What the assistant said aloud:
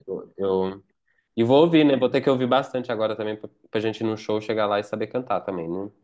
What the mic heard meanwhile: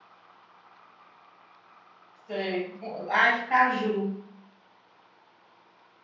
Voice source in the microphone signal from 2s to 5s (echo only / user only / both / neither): user only